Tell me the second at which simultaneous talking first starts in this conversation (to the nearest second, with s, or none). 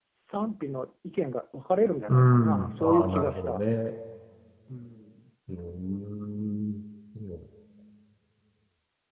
2 s